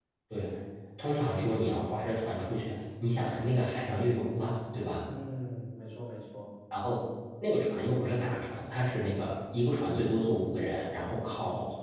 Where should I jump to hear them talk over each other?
none

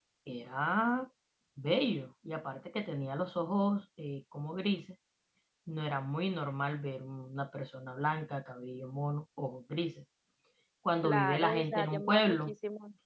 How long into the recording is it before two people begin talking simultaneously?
11.0 s

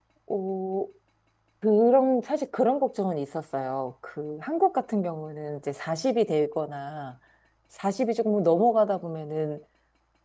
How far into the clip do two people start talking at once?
none

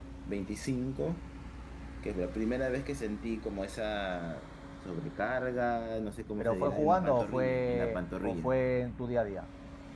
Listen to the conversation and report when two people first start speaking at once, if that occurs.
6.4 s

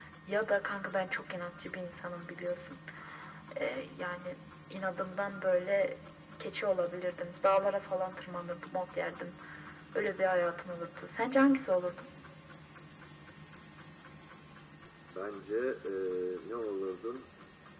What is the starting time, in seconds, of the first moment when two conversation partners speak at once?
none

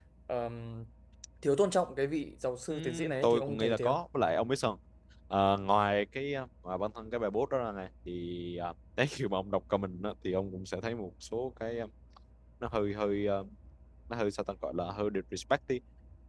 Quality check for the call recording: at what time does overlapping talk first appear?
2.7 s

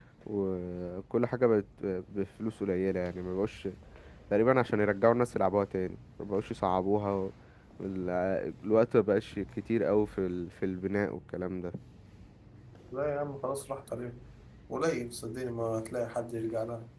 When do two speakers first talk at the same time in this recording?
none

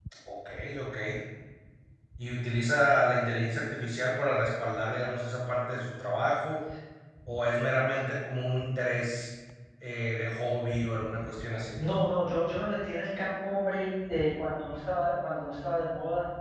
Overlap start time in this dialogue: none

